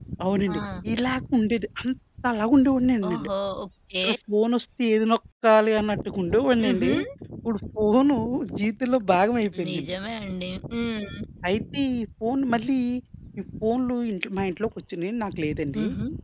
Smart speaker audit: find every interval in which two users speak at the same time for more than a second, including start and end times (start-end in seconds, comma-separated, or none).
none